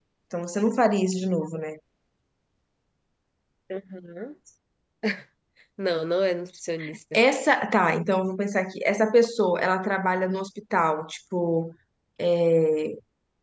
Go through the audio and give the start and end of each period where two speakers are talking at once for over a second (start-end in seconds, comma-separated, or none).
none